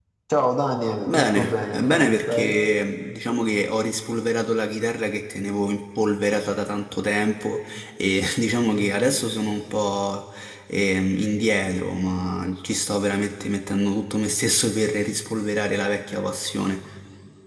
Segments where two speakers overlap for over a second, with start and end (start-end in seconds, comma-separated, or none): 1.1-2.6